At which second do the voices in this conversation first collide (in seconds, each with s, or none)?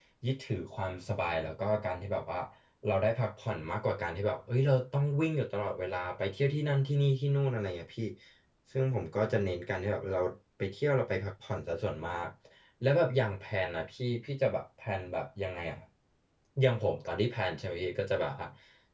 none